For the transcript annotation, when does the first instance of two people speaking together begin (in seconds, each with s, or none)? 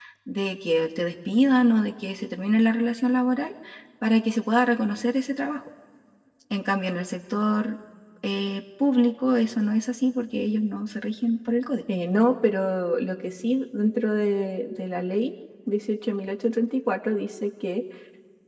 none